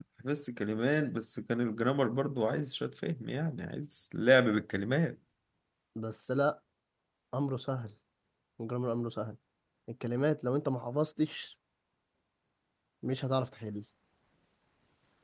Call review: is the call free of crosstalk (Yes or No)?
Yes